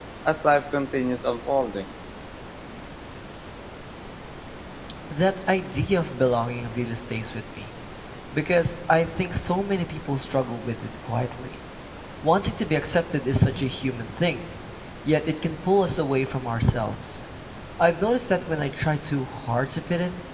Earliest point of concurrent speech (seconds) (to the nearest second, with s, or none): none